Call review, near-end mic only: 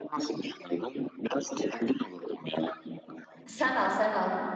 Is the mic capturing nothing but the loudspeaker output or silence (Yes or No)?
No